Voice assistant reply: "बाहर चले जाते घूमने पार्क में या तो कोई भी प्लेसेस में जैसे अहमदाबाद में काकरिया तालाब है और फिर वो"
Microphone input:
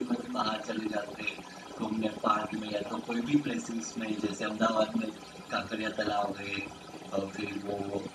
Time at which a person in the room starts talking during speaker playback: none

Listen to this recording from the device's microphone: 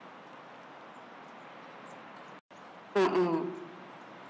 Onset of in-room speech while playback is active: 3.0 s

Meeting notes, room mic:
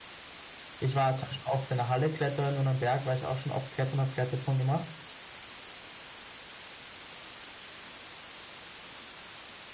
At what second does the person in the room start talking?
0.8 s

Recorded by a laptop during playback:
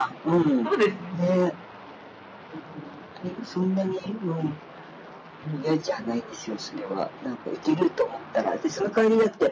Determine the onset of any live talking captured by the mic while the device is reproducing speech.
0.6 s

